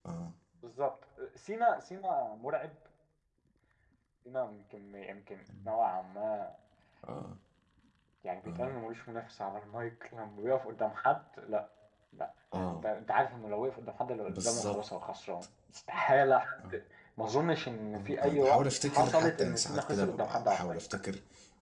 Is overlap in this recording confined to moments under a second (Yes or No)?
No